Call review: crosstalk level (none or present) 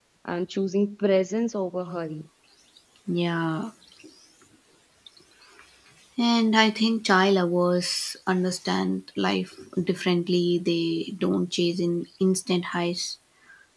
none